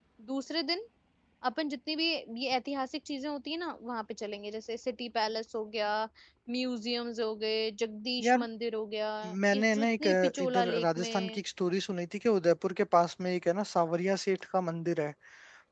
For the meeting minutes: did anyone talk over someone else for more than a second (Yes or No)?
Yes